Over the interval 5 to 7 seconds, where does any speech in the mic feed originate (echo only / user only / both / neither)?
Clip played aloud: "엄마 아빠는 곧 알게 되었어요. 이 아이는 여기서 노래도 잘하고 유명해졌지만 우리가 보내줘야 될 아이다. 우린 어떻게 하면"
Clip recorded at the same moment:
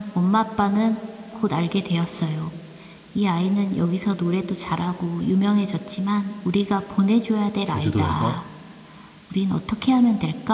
echo only